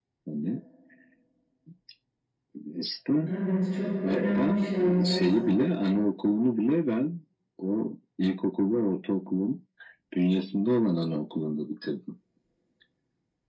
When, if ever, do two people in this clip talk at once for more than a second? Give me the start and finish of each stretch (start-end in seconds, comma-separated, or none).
4.0-5.4